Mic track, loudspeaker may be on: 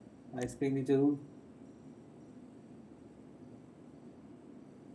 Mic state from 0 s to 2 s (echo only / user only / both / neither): user only